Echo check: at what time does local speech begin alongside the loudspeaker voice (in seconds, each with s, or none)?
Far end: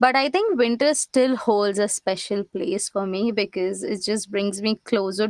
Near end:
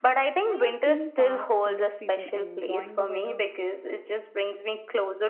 0.5 s